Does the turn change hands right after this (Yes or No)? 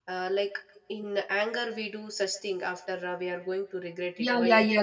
Yes